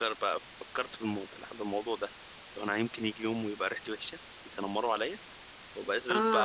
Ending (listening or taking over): listening